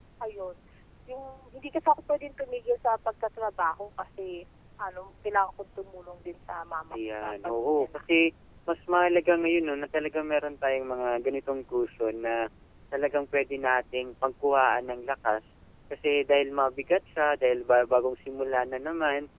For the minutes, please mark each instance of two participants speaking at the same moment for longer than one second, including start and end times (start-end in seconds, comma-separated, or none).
6.9-8.3